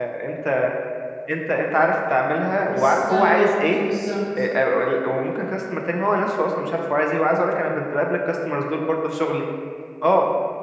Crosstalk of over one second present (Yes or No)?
Yes